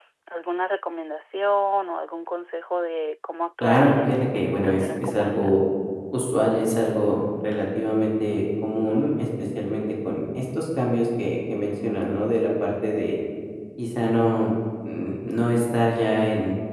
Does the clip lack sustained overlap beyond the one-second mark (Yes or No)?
No